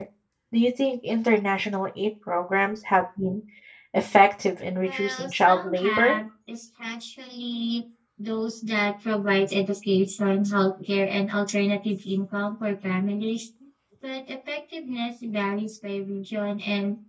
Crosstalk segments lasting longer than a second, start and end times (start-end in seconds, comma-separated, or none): 4.8-6.2